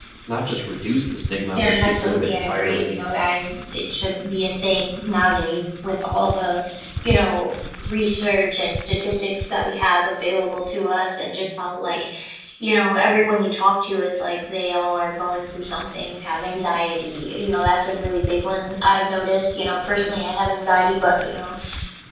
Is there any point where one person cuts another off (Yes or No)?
Yes